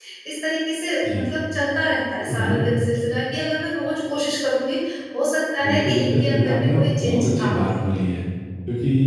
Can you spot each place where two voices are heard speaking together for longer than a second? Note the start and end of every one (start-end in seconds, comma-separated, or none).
5.6-7.7